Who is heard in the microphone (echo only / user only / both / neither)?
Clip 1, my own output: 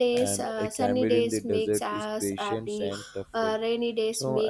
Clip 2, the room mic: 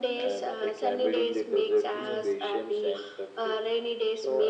both